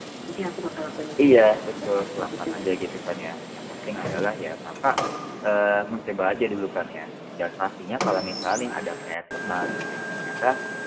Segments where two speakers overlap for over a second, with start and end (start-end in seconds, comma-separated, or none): 1.2-3.0